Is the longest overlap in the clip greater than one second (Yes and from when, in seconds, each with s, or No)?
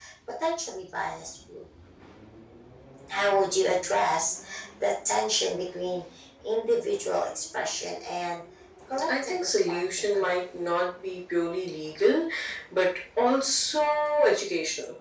Yes, from 9.1 s